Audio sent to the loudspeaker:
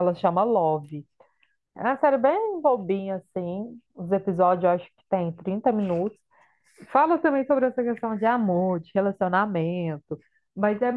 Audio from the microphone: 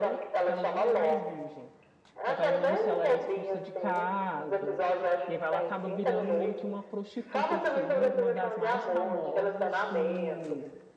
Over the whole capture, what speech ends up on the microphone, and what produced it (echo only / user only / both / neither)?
both